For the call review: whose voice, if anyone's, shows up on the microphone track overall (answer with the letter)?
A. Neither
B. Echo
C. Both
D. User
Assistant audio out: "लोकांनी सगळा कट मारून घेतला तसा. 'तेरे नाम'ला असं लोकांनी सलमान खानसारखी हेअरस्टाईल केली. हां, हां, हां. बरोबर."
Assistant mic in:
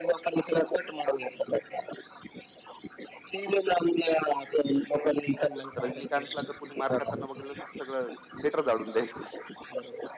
C